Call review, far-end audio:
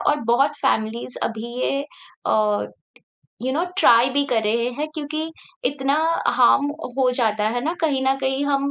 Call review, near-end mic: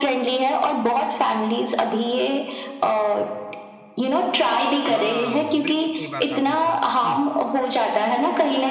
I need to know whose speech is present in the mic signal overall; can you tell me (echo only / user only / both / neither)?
both